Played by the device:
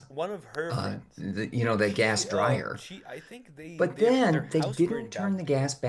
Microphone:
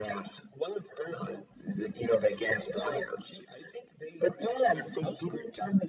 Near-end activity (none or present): none